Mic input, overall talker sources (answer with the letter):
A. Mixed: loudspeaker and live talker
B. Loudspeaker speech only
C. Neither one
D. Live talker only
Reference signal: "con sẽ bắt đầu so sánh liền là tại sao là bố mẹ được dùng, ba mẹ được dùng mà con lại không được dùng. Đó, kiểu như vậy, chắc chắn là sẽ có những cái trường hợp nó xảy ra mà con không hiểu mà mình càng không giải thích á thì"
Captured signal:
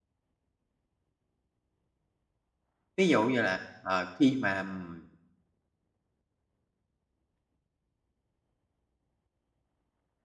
D